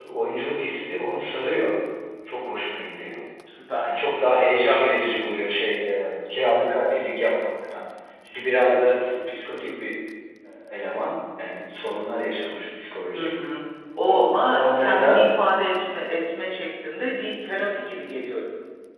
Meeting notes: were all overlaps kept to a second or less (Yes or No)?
No